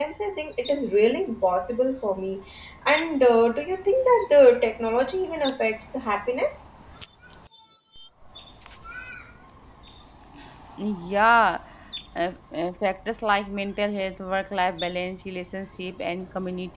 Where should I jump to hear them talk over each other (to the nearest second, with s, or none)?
none